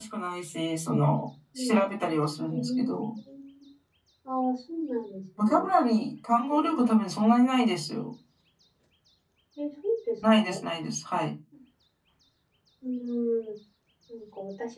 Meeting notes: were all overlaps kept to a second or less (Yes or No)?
Yes